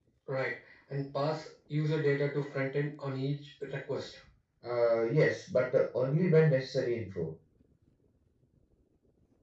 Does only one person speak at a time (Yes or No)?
Yes